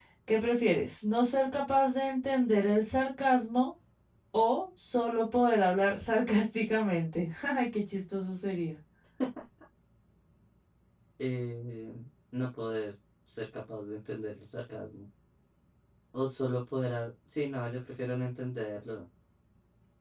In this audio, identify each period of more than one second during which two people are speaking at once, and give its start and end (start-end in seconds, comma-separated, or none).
none